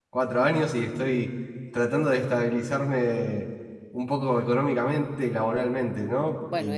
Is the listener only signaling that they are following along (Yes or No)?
No